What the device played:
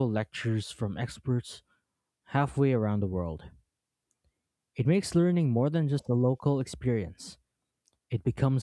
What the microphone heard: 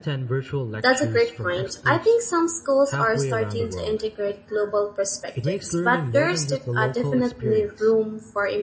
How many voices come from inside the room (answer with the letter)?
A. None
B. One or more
B